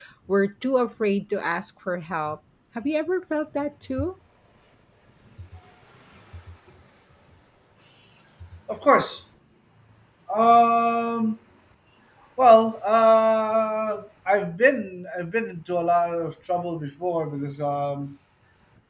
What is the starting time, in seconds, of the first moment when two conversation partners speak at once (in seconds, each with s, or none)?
none